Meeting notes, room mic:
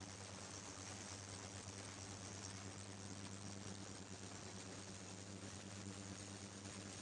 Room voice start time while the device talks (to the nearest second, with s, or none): none